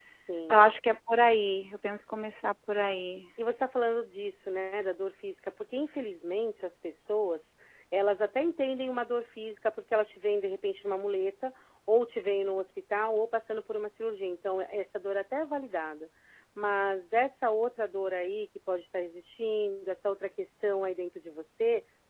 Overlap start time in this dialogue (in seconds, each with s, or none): none